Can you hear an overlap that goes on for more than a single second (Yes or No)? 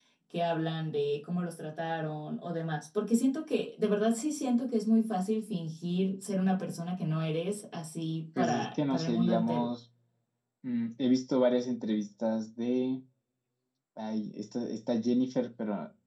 Yes